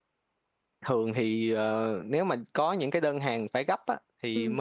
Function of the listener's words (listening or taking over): listening